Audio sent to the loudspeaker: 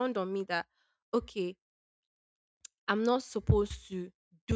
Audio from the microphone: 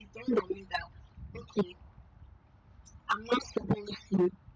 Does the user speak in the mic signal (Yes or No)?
No